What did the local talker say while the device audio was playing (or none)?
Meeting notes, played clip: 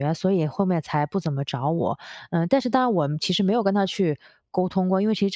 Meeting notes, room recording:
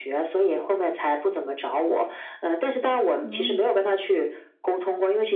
哦。